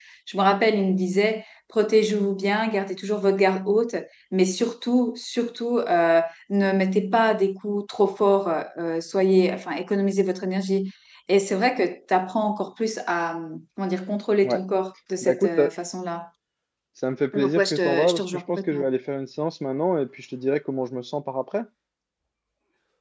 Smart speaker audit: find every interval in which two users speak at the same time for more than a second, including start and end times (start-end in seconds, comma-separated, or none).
17.3-18.9